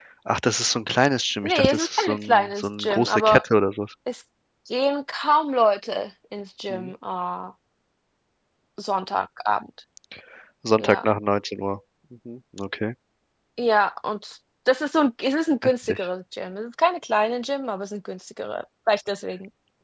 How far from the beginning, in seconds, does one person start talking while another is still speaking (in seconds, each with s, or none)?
1.4 s